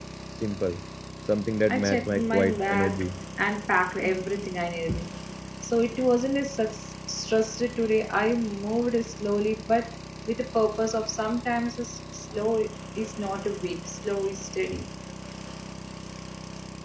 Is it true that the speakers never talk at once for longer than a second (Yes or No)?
No